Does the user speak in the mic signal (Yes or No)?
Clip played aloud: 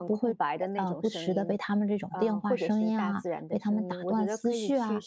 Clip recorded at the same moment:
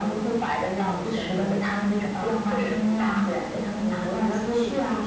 No